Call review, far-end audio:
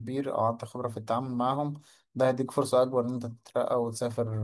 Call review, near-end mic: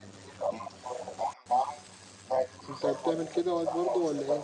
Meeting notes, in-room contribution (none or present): present